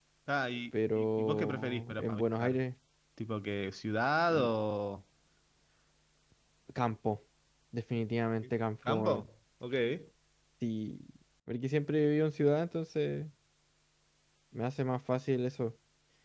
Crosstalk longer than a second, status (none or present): present